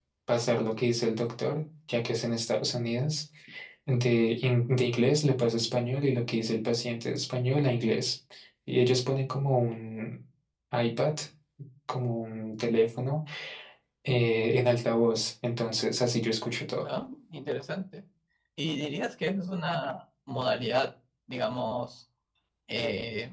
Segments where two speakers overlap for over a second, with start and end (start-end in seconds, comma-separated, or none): none